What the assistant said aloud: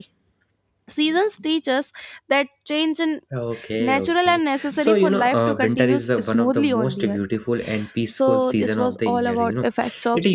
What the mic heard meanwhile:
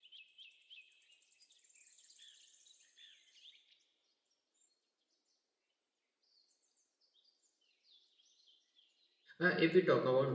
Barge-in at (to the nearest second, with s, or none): 9 s